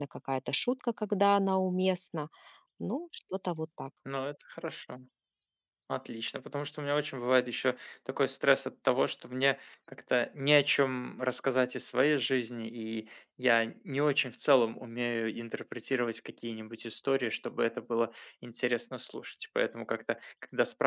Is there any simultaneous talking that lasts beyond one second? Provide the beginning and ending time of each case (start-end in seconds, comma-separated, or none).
none